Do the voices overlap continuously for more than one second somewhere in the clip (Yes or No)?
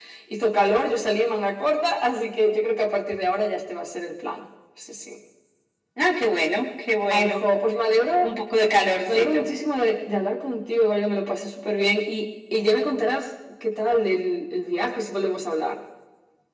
No